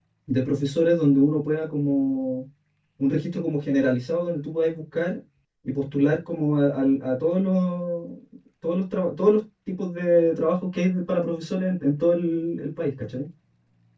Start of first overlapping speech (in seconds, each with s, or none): none